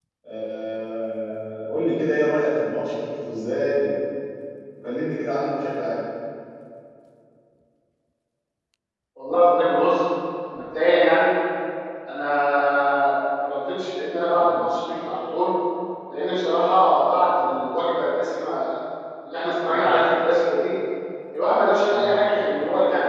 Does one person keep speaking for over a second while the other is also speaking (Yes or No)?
No